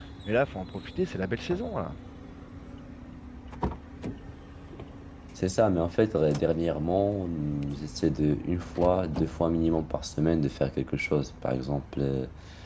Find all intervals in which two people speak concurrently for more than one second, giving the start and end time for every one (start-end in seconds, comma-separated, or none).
none